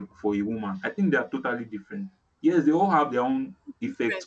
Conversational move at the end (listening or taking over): taking over